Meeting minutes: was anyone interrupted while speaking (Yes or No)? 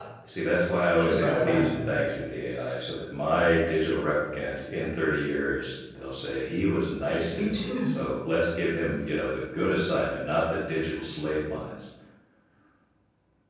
Yes